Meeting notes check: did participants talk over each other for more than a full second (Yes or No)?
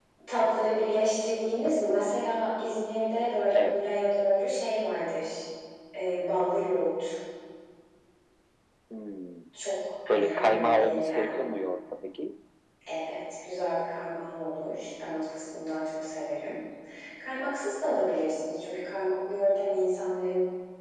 Yes